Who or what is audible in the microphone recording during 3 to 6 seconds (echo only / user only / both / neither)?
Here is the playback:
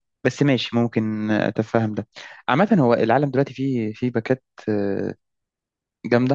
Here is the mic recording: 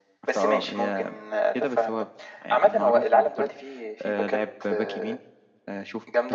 both